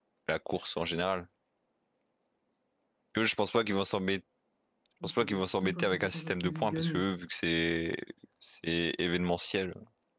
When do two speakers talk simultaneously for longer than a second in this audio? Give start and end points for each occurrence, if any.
5.0-7.0

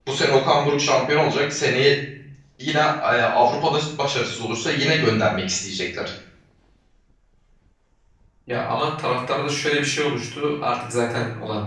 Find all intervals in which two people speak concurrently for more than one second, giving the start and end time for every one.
none

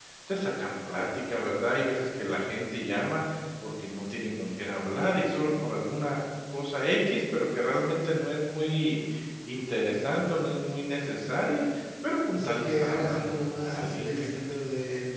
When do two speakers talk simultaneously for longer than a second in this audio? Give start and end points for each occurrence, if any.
12.3-14.4

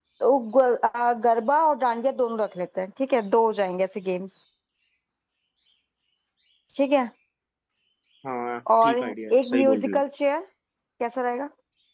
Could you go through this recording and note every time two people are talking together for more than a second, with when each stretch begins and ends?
8.8-10.0

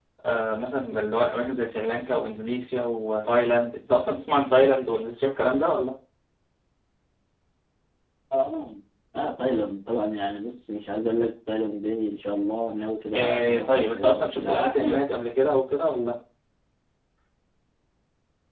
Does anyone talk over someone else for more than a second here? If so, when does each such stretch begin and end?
13.1-15.1

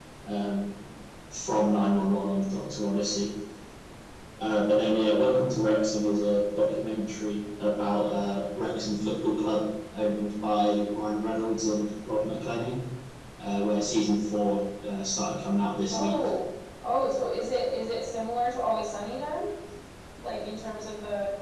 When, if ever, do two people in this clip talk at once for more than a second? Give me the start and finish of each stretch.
none

